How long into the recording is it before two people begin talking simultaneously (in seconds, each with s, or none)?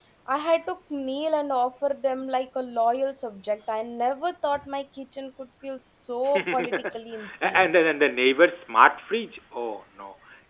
6.3 s